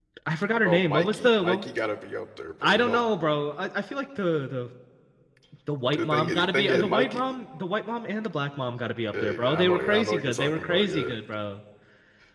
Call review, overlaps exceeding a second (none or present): present